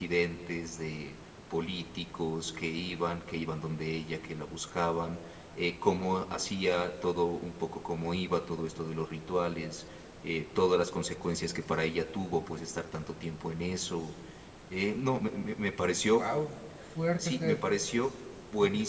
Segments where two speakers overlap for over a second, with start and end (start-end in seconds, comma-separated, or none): none